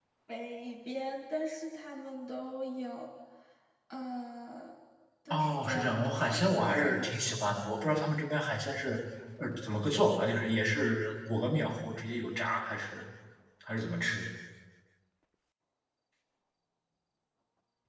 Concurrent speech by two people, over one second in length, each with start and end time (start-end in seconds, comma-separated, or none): 5.3-7.5